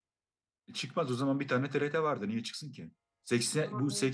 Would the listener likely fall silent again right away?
Yes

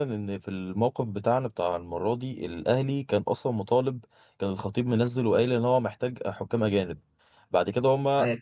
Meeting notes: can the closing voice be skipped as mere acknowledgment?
Yes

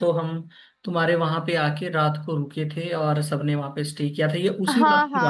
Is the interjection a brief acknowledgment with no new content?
No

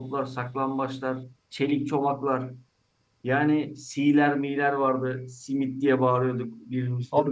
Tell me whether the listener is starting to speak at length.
No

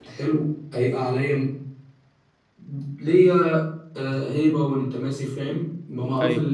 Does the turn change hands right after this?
No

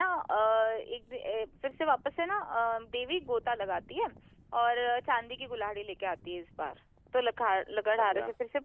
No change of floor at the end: Yes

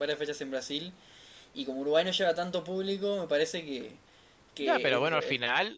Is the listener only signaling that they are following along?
No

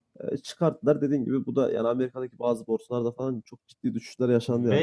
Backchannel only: No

